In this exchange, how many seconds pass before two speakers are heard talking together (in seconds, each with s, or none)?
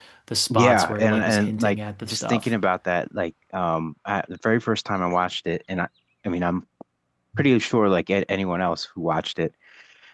0.5 s